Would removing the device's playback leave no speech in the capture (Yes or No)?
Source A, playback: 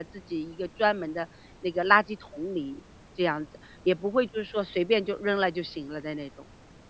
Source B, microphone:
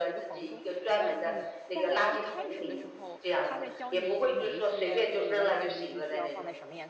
No